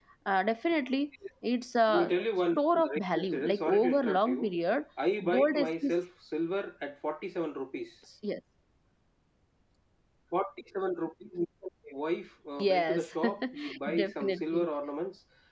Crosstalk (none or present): present